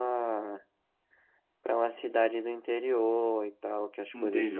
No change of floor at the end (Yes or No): No